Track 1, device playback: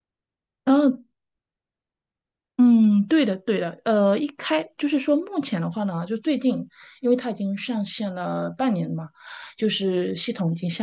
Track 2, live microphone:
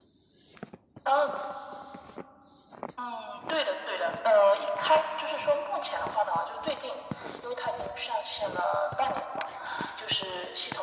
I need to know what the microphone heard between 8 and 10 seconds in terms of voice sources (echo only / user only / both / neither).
echo only